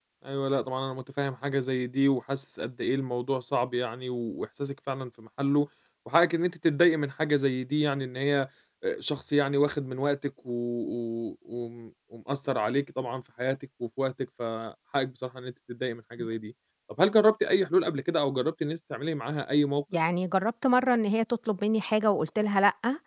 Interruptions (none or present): none